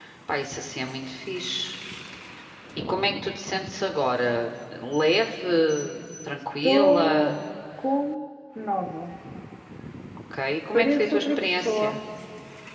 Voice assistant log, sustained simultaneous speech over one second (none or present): present